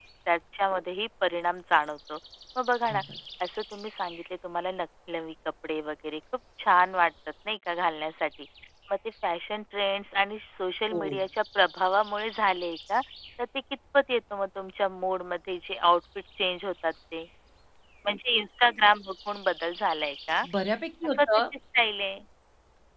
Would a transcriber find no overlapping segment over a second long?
Yes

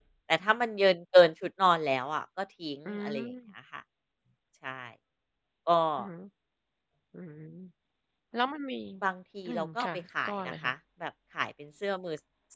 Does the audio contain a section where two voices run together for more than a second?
Yes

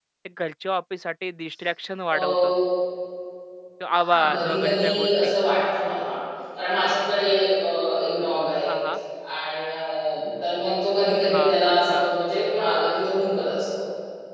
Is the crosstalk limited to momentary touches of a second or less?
No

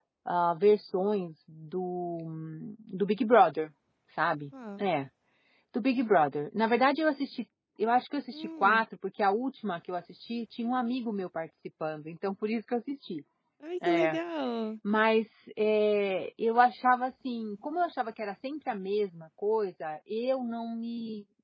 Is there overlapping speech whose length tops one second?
No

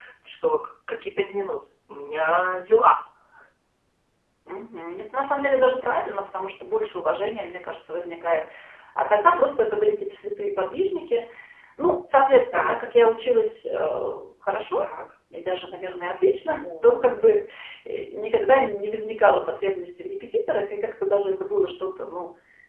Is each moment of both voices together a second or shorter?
Yes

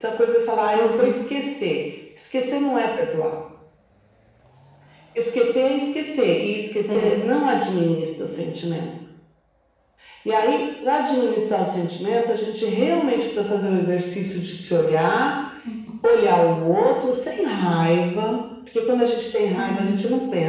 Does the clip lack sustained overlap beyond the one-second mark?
Yes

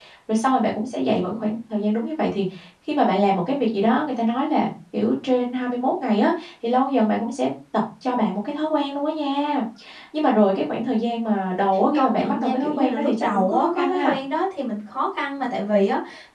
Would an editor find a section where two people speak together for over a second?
Yes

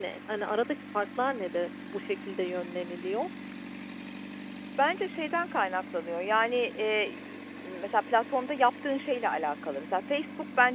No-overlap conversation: Yes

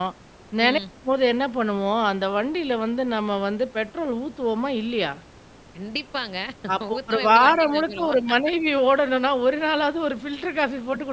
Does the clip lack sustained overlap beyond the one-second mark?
No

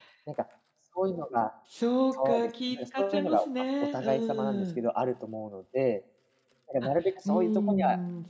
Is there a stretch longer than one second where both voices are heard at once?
Yes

